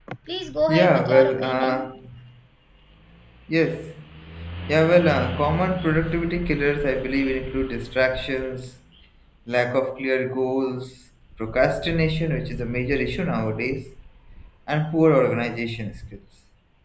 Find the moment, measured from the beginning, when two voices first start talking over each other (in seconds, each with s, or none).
0.7 s